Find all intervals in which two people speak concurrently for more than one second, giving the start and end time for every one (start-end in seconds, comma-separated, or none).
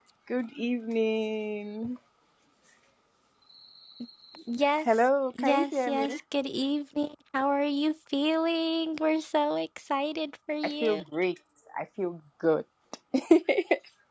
4.8-6.2